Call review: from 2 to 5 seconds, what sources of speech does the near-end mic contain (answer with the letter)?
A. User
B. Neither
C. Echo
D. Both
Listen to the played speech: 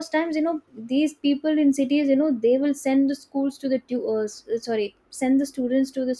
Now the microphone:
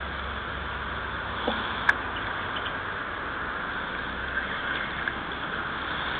B